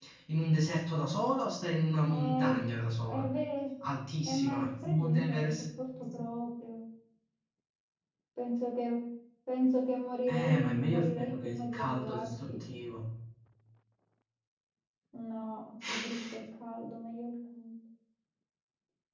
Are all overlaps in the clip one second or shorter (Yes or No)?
No